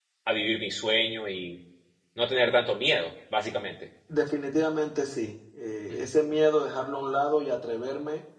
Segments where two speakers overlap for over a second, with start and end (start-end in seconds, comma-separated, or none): none